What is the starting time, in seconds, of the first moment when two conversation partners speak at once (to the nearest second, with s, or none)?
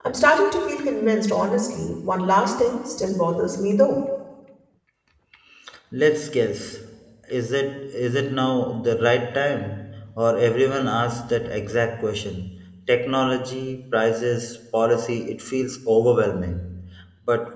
none